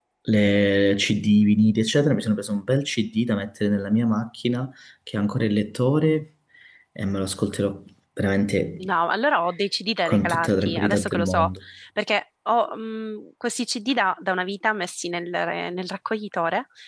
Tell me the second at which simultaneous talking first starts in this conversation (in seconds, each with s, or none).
10.1 s